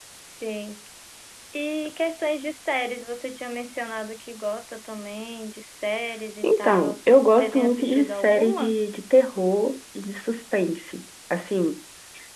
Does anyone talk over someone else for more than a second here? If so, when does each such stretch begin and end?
6.4-8.8

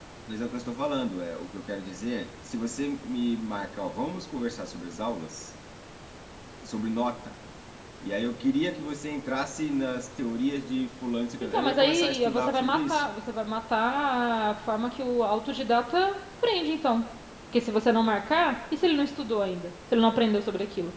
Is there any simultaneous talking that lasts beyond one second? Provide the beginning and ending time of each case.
11.4-13.1

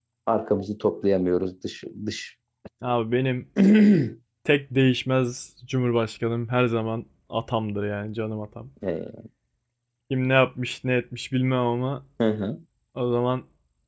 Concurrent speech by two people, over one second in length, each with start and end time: none

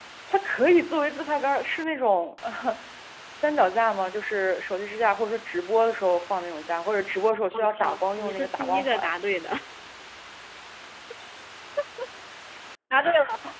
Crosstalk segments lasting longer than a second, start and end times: 7.5-9.1

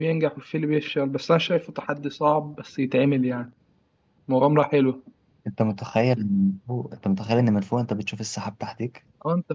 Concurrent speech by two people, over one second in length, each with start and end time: none

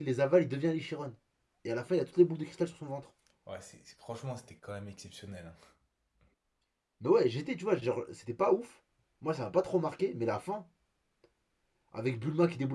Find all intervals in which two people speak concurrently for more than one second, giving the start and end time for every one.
none

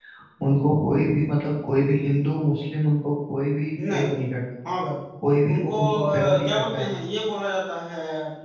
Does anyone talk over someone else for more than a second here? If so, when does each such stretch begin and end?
5.5-6.9

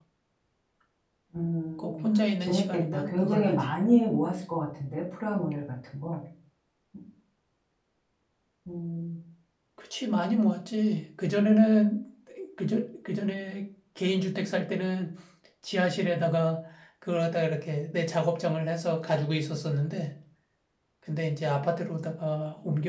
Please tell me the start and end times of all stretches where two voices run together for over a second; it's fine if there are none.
2.4-3.6

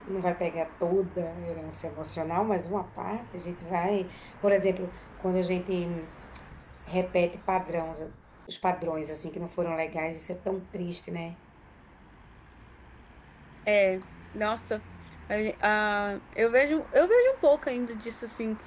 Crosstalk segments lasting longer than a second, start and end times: none

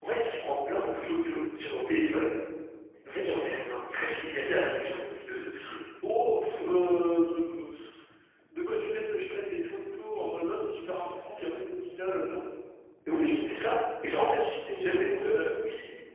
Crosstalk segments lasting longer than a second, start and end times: none

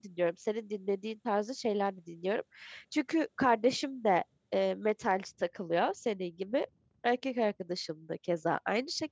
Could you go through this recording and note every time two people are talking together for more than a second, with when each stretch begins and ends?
none

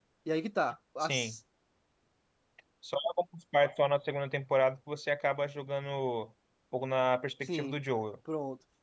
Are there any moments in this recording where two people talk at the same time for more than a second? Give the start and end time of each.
none

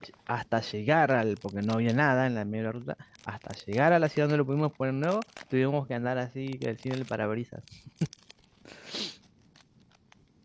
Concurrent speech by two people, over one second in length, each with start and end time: none

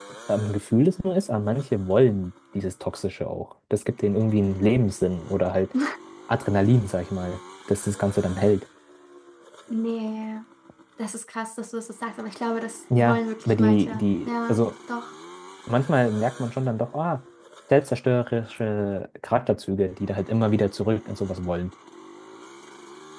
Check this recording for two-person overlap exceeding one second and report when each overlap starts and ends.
13.0-14.6

